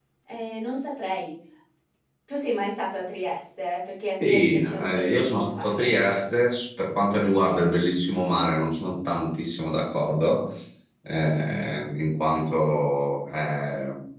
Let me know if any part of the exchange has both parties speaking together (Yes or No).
Yes